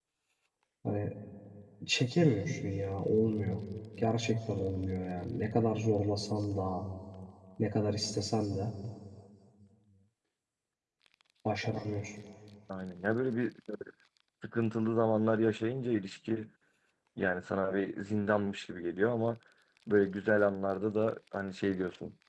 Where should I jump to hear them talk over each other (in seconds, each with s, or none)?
none